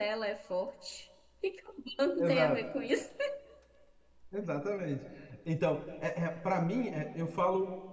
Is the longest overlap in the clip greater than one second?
No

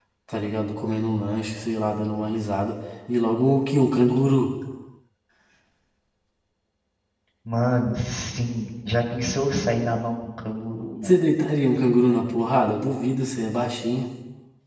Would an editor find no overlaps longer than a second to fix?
Yes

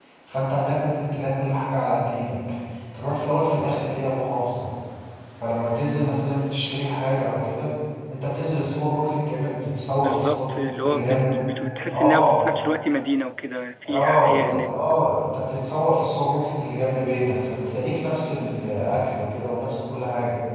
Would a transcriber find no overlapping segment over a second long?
No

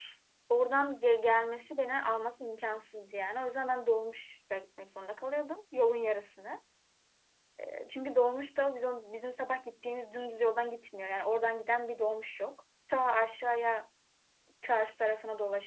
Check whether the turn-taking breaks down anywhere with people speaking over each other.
No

